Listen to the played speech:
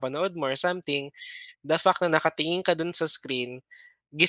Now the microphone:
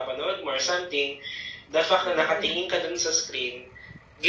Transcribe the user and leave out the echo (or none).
totoo yan.